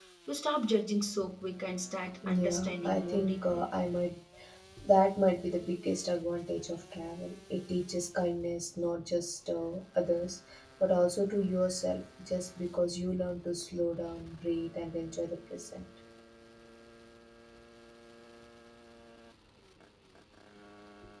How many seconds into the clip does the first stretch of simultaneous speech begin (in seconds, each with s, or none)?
2.2 s